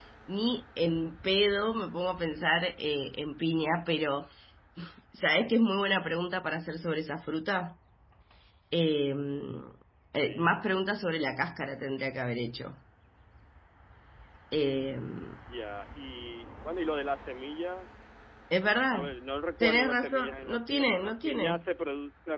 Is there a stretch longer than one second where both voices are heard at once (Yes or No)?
Yes